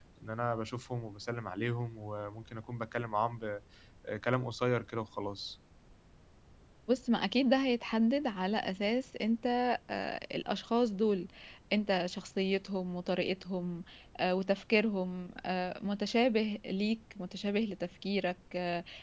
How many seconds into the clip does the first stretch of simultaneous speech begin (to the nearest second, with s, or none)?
none